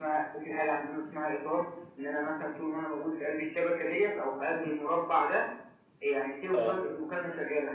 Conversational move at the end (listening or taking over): listening